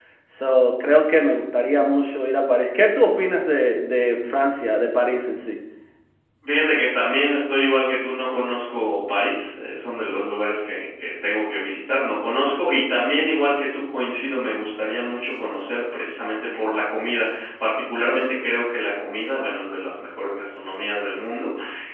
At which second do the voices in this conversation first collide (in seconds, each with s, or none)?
none